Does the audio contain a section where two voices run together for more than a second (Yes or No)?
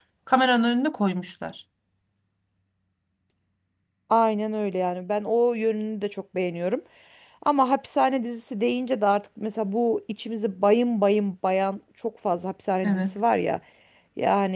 No